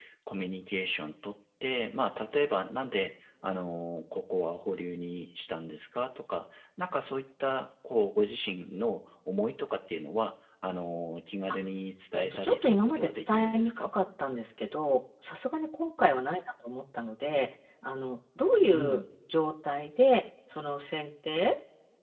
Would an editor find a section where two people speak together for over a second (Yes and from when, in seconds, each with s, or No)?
Yes, from 12.1 s